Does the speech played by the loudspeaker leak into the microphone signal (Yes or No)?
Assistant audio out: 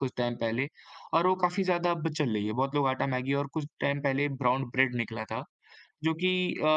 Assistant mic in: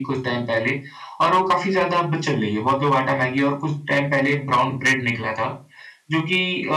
Yes